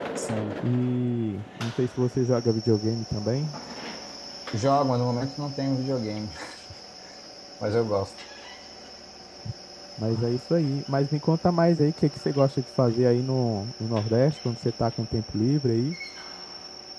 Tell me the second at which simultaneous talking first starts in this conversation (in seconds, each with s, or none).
none